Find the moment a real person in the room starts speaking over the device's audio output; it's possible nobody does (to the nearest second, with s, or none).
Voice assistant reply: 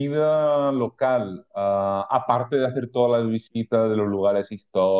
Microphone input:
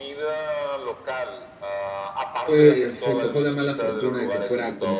3 s